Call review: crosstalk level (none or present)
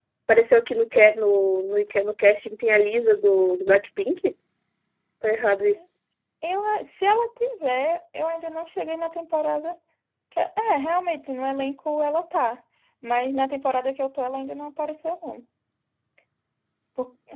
none